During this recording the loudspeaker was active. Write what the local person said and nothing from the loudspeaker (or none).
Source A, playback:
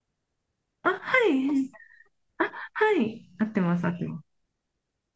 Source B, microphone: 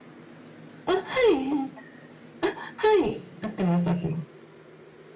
none